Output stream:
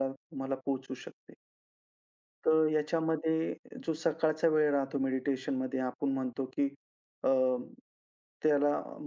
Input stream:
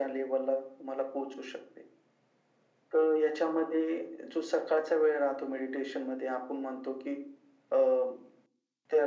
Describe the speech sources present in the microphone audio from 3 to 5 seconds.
echo only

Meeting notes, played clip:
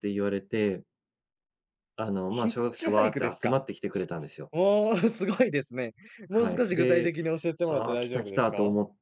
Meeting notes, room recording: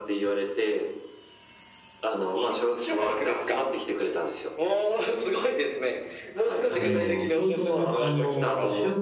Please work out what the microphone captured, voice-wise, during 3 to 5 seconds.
echo only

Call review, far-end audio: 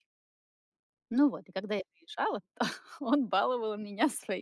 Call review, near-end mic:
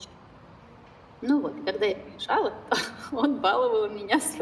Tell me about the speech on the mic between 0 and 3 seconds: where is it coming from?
echo only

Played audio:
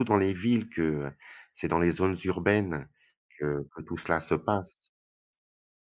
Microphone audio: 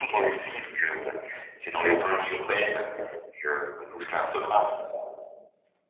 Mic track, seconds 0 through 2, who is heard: echo only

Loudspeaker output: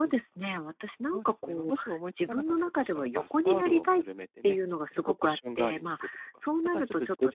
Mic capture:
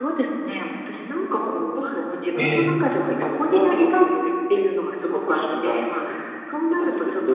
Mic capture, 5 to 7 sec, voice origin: echo only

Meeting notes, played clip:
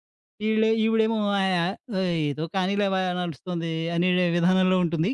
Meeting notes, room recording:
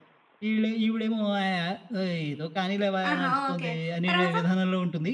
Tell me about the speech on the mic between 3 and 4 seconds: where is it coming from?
both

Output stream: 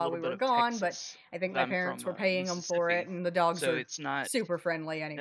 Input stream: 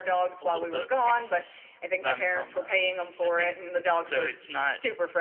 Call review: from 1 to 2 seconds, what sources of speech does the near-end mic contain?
echo only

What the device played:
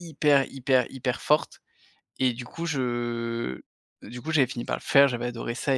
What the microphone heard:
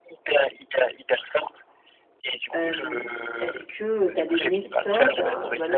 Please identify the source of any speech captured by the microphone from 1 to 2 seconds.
echo only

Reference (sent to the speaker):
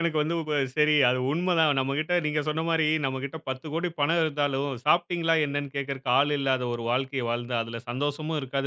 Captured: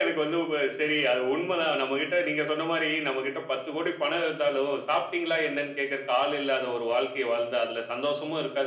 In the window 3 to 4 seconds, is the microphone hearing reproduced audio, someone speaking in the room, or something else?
echo only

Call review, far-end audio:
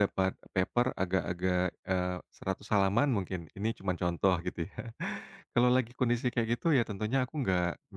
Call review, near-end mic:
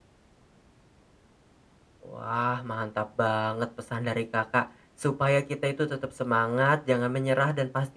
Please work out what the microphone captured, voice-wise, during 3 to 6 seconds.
user only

